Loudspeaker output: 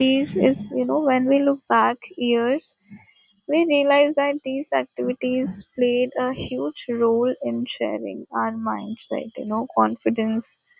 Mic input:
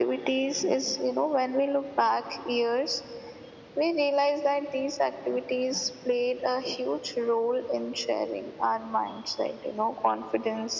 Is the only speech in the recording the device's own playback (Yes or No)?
Yes